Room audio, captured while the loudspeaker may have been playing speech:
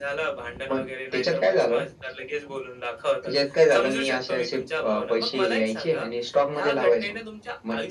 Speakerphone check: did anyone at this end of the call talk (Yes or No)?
No